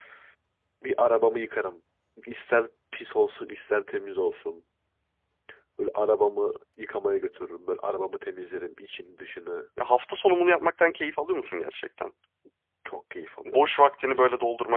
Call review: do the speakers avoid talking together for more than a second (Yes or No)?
Yes